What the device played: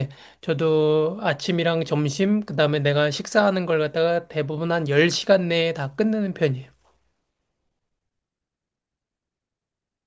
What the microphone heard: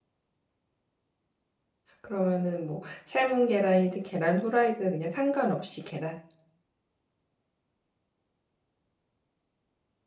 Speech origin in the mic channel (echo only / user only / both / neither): user only